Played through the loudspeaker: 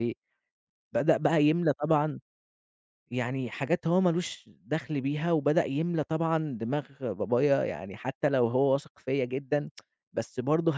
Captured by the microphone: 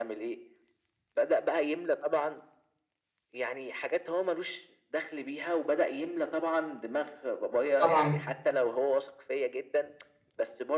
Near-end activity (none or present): present